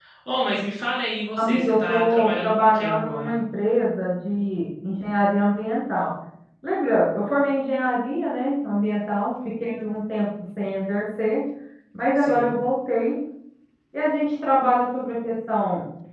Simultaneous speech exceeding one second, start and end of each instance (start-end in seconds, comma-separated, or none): 1.4-3.3